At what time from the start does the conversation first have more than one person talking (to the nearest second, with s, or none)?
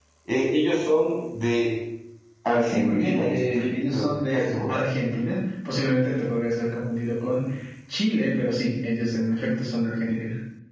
2 s